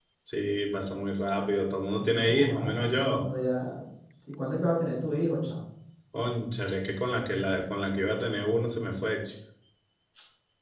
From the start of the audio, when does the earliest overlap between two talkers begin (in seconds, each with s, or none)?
2.0 s